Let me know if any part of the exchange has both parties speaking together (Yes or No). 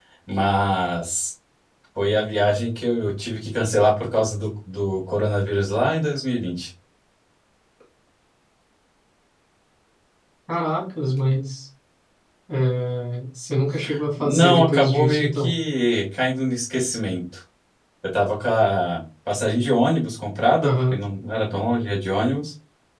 Yes